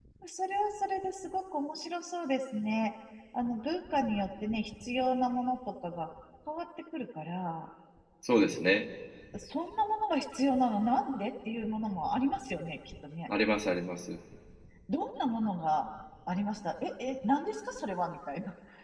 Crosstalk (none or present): none